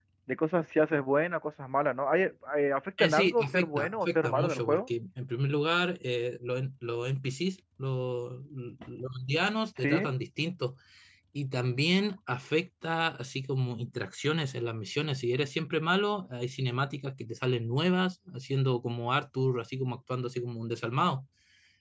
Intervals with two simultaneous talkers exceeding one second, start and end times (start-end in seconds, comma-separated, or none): 3.0-4.8